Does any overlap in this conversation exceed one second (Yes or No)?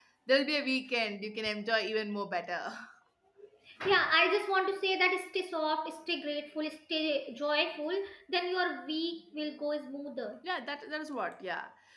No